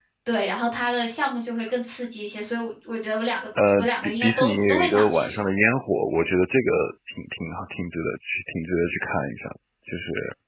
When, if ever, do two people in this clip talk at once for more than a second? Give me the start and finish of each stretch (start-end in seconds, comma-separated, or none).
3.8-5.4